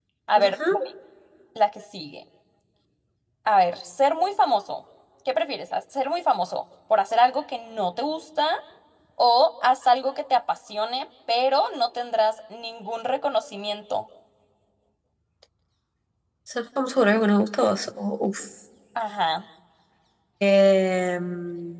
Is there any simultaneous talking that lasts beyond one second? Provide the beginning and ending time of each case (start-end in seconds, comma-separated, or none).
none